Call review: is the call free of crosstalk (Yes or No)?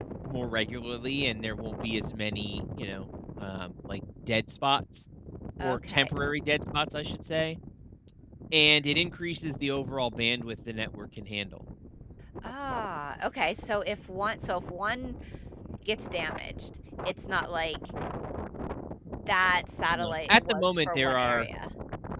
No